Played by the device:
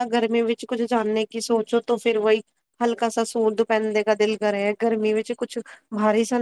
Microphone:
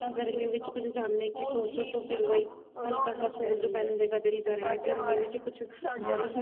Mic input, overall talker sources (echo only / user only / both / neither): both